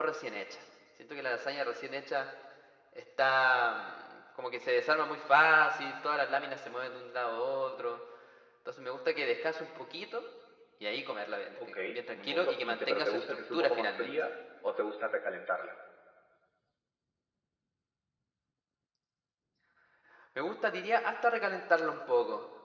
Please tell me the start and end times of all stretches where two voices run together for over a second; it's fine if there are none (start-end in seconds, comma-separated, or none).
11.7-14.1